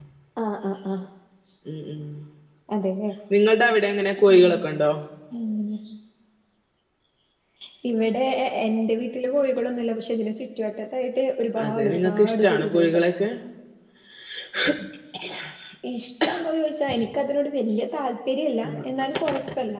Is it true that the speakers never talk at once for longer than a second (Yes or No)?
No